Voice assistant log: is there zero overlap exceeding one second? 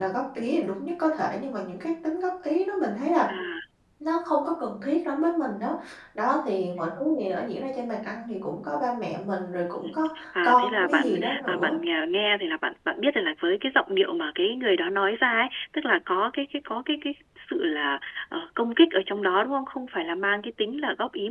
No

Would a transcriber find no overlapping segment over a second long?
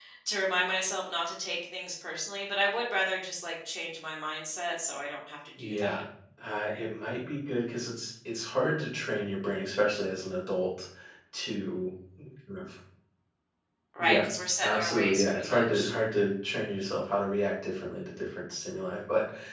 No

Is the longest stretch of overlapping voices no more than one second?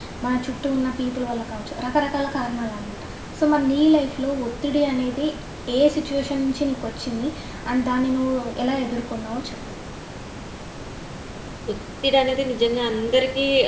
Yes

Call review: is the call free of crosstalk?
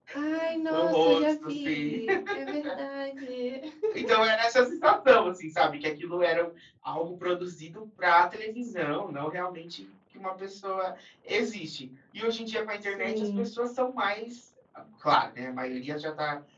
No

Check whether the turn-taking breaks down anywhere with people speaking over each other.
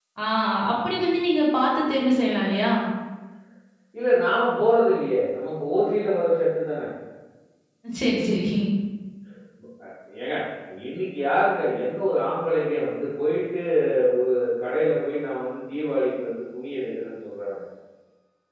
No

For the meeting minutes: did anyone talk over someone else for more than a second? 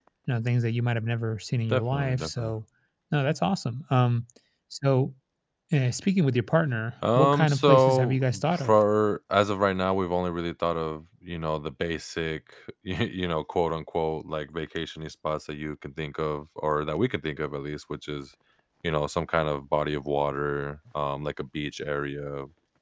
Yes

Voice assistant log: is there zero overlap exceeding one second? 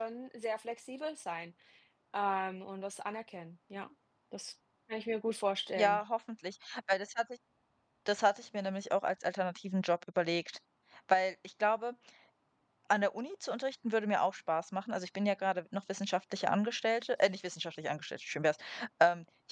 Yes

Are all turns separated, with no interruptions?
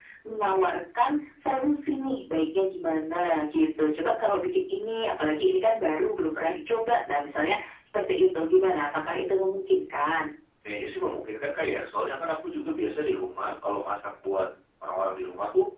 Yes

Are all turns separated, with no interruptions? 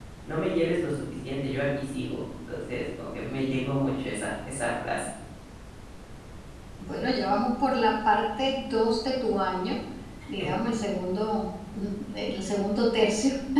Yes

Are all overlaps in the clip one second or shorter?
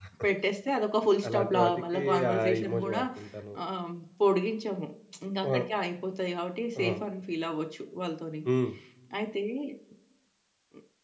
No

